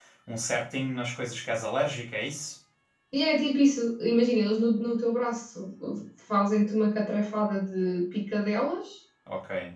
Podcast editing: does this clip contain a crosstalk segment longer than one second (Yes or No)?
No